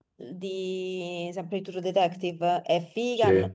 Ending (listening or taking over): listening